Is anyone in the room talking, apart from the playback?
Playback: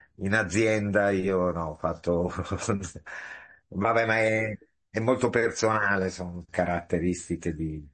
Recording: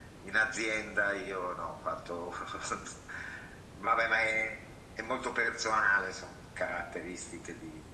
No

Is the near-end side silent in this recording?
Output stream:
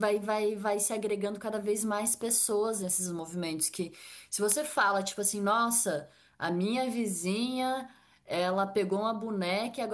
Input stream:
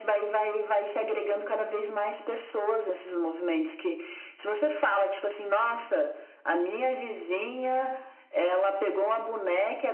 Yes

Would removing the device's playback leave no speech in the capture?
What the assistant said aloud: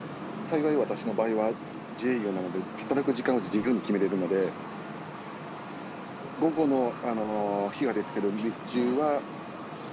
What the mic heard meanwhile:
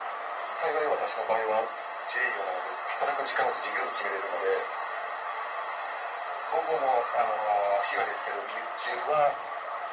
Yes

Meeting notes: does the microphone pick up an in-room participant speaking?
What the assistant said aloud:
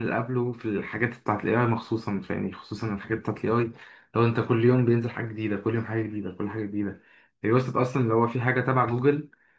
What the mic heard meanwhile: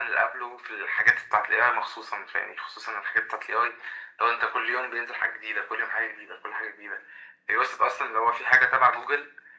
No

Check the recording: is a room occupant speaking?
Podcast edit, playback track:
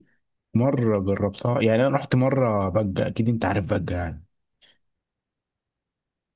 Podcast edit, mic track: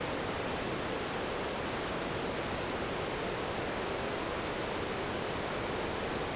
No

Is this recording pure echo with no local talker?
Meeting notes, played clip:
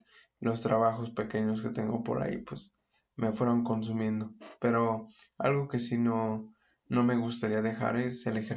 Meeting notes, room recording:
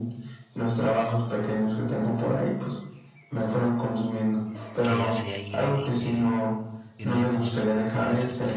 No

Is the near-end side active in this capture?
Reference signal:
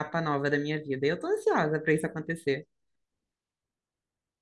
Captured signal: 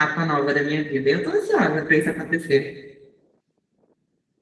No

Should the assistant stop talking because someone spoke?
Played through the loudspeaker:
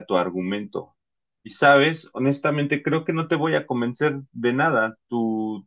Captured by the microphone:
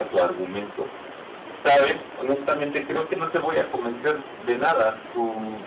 No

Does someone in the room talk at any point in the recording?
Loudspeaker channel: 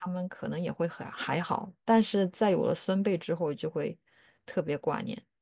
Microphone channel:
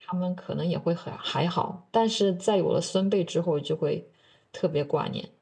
No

